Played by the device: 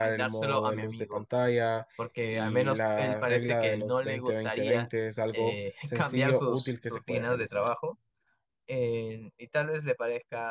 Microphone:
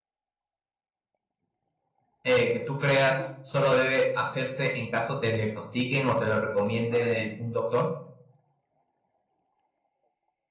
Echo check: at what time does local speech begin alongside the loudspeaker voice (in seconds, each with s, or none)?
2.2 s